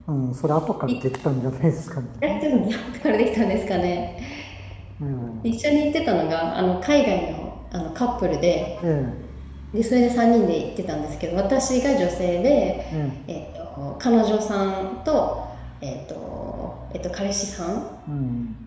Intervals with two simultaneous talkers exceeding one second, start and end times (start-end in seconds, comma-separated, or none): none